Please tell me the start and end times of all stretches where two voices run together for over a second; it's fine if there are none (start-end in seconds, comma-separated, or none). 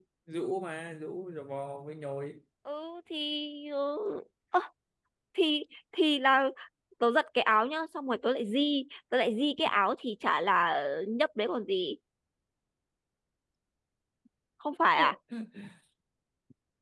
none